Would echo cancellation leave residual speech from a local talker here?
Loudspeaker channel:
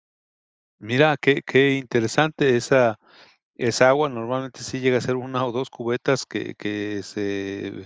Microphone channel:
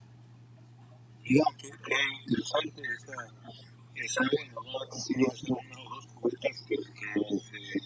No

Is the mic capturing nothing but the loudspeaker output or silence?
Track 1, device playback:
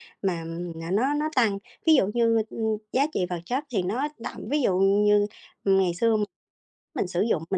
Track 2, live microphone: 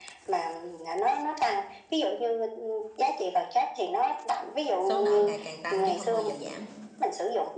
No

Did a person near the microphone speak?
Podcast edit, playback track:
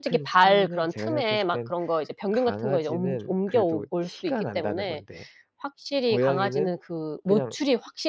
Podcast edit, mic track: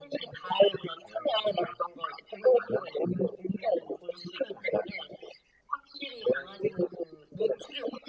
No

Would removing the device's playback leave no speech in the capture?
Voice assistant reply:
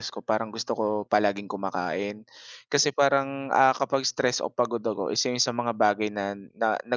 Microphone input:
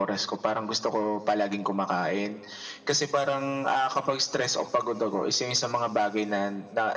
Yes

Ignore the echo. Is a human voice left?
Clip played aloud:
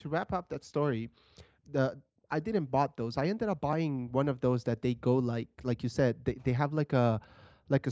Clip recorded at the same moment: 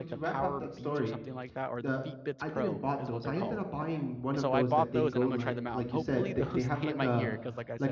Yes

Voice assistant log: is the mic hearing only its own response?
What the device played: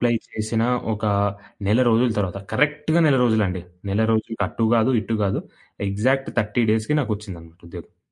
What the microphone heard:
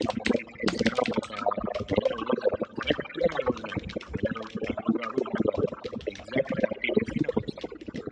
Yes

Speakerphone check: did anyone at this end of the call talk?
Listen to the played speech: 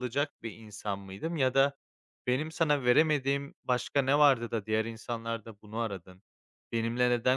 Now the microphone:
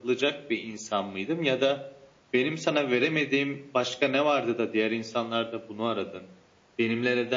No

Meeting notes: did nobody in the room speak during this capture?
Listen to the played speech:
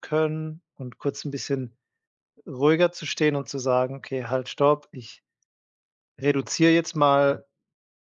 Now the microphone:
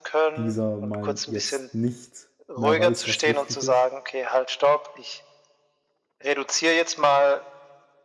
No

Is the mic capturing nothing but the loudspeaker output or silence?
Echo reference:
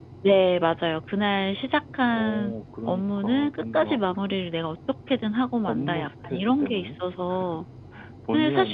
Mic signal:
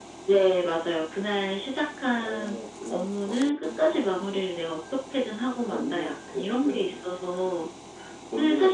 Yes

